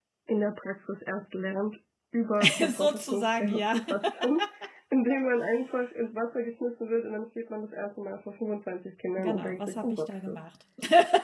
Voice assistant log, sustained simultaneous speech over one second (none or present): present